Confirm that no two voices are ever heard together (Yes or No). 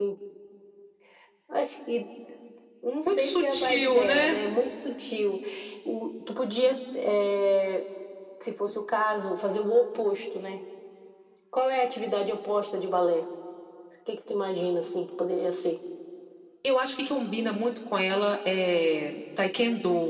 No